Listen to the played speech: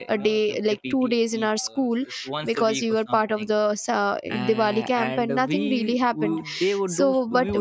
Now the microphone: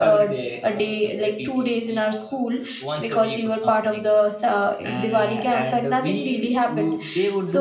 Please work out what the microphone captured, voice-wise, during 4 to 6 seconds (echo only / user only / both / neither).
echo only